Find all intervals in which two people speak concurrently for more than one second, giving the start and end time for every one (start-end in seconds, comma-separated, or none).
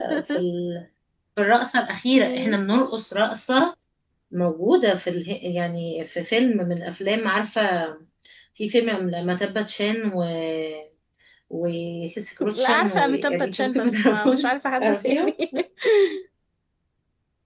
12.6-14.4